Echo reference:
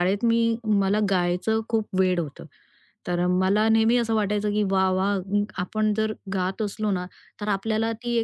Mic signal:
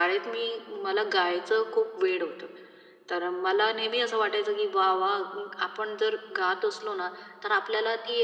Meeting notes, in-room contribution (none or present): none